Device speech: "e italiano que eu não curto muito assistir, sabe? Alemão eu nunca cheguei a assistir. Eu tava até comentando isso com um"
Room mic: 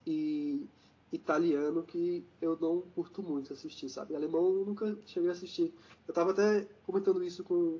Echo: present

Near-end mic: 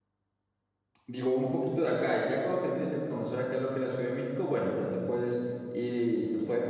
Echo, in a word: none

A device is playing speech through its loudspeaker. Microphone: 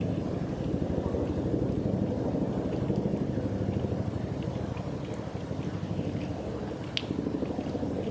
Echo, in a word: none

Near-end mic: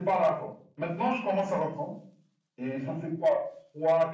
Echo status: present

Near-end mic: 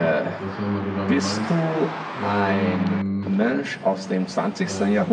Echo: present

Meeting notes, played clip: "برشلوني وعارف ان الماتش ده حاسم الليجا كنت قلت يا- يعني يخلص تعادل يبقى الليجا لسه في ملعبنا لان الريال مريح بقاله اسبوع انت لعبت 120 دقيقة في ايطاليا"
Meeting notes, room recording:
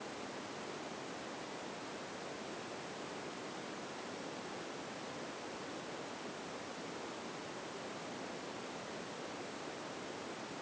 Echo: none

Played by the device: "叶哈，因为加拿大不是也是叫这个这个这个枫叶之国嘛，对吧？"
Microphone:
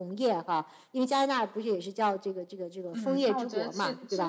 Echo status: present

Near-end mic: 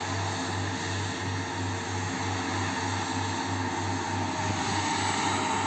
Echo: none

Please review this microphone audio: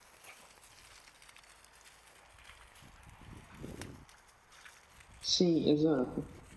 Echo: none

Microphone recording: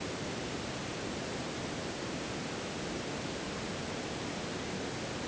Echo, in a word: none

